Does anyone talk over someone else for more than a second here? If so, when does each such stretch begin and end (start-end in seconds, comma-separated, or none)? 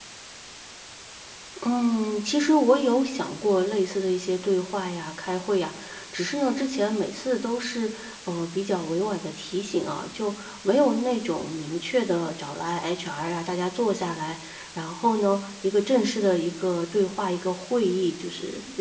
none